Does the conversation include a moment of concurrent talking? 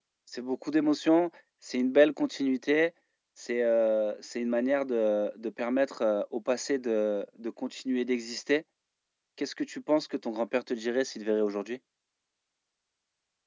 No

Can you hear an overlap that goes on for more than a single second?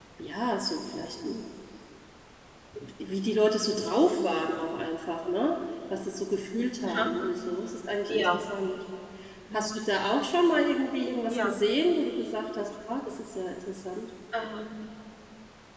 No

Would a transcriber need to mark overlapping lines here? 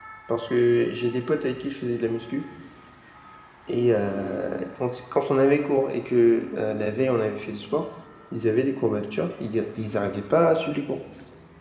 No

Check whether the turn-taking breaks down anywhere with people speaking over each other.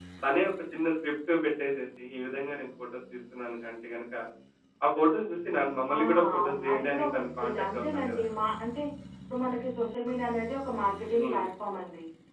Yes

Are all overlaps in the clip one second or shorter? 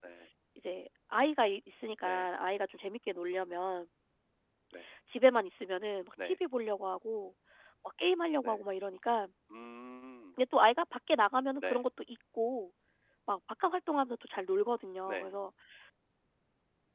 Yes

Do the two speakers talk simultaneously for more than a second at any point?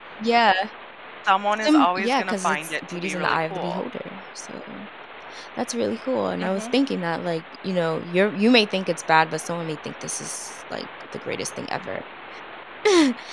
Yes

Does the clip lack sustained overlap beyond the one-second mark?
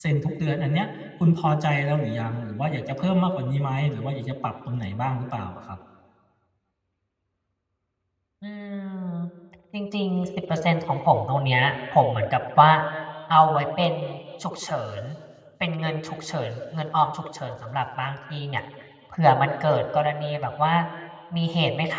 Yes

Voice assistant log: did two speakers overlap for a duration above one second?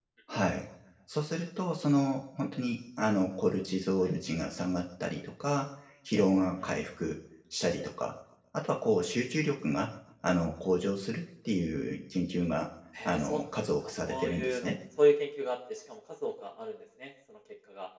Yes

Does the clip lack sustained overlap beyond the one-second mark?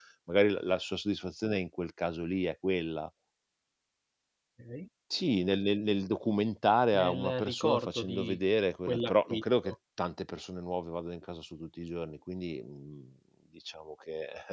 No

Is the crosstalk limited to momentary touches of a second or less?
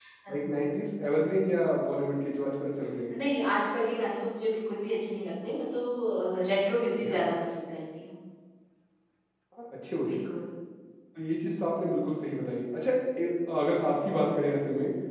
Yes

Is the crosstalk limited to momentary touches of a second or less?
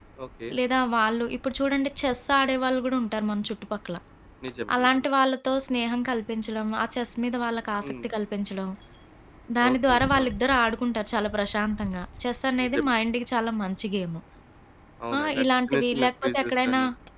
No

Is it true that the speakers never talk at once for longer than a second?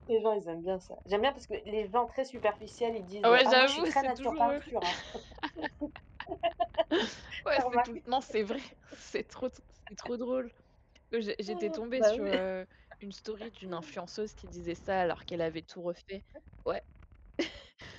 No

